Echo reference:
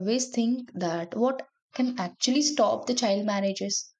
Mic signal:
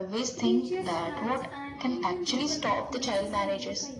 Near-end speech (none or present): present